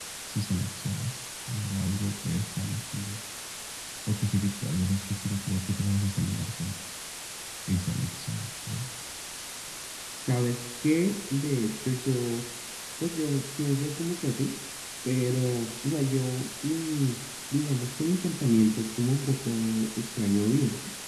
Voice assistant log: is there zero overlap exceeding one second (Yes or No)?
Yes